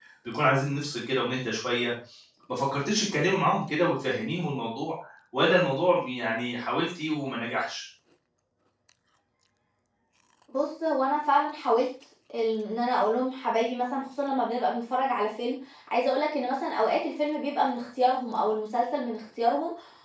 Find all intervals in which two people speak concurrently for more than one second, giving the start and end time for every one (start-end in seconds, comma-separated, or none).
none